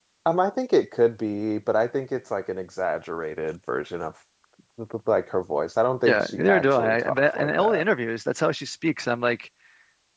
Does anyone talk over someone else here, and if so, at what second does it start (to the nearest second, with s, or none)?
6 s